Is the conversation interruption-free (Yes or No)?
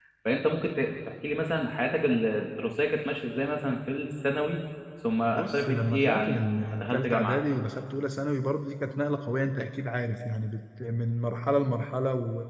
No